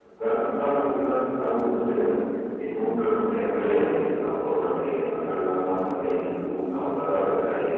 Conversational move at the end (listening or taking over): listening